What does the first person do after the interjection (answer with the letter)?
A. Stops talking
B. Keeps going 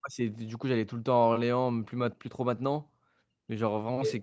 B